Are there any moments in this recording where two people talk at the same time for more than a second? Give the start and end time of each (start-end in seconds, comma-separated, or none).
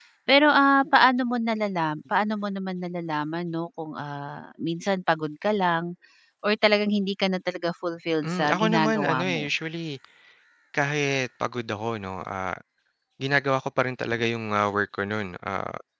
8.2-9.5